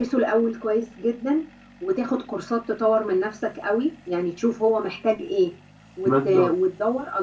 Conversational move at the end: listening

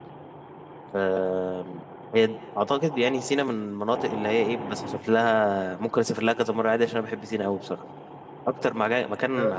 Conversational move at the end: listening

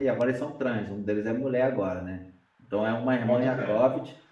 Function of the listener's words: listening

